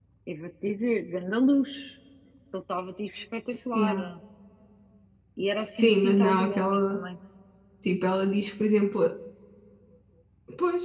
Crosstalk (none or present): present